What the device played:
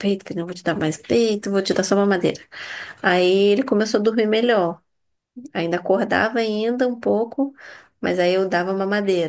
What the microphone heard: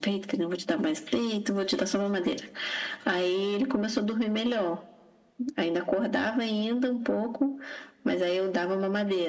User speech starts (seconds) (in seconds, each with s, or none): none